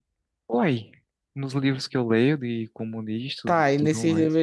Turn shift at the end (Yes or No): Yes